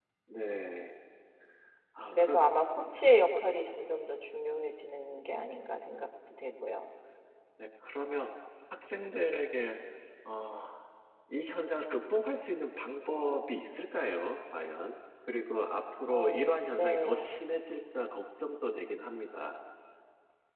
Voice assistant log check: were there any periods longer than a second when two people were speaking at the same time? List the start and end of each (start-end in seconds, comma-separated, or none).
16.0-17.3